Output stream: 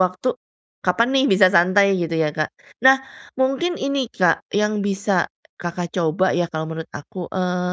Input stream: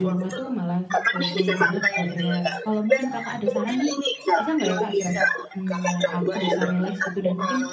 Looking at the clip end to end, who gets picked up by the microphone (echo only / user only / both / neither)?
both